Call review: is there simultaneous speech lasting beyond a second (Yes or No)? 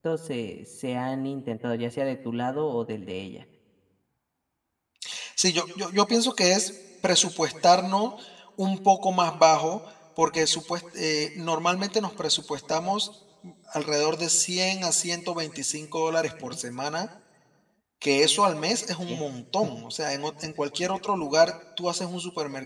No